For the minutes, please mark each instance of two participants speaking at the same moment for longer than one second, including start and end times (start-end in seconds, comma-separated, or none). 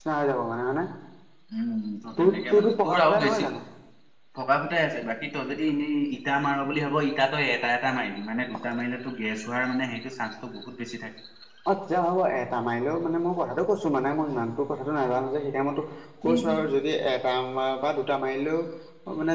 2.2-3.4